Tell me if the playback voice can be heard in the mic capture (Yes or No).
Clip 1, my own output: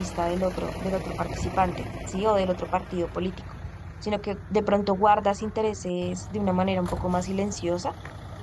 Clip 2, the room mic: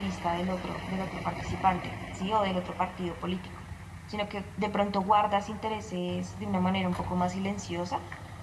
Yes